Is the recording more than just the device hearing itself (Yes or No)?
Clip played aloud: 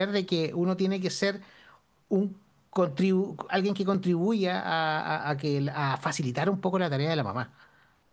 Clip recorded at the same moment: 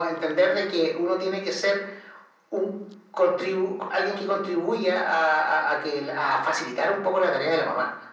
No